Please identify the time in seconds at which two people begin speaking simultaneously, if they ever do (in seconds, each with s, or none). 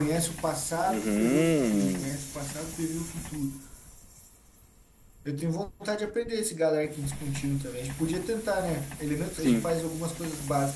0.9 s